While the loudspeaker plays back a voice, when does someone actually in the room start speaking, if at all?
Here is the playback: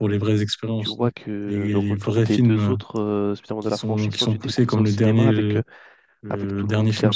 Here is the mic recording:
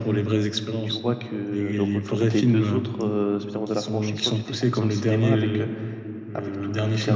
none

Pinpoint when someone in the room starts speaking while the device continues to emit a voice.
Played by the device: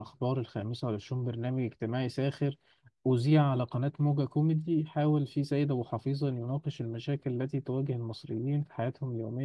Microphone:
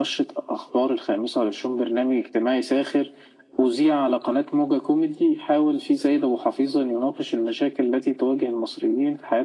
none

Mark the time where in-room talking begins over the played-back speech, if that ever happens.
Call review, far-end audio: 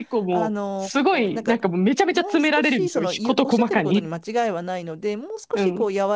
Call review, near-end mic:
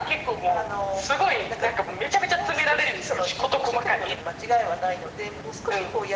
none

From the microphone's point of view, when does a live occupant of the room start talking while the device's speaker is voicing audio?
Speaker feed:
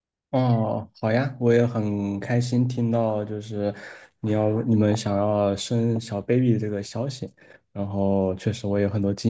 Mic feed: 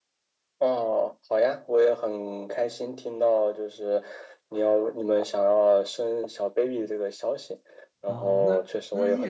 8.1 s

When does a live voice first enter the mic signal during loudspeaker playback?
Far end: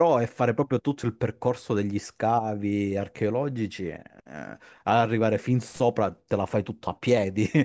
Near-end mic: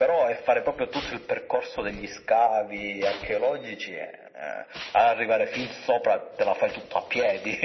none

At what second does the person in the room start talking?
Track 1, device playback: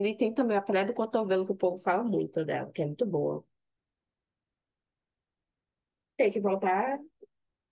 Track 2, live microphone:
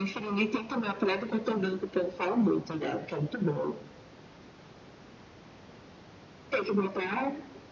none

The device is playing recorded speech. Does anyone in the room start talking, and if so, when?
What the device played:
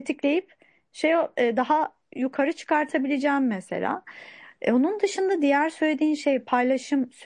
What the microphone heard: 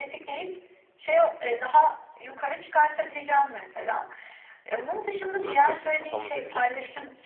5.4 s

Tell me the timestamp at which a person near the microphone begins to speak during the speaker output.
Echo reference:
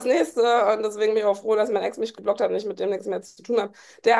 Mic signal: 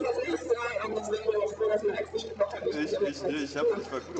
2.7 s

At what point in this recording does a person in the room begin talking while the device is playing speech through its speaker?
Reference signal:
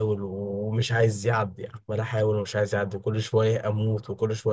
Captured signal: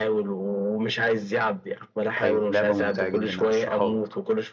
2.2 s

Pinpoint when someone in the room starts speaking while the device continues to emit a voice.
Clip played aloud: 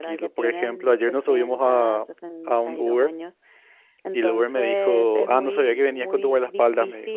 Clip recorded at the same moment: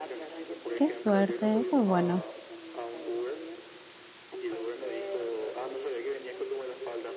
0.7 s

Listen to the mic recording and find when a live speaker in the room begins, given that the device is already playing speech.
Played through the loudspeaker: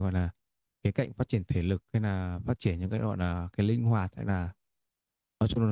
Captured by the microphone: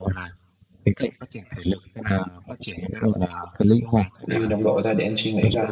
4.2 s

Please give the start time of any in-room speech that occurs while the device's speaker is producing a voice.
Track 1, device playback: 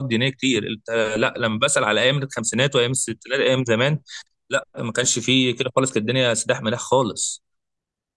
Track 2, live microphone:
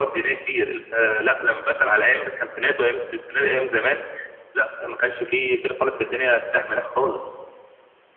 none

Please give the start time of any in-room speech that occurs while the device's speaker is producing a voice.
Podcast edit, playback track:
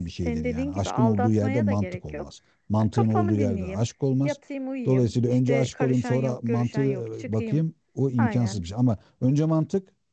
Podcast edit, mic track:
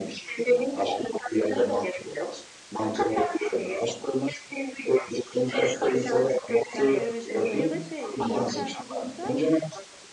6.9 s

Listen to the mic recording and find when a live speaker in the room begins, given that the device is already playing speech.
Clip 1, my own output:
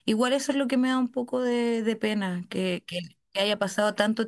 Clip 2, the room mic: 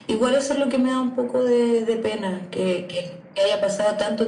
none

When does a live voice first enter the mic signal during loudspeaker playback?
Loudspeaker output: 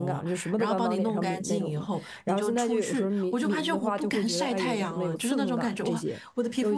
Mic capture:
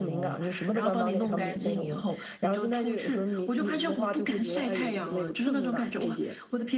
none

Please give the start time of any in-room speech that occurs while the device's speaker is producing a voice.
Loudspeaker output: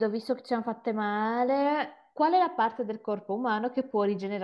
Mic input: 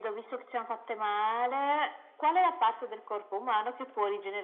none

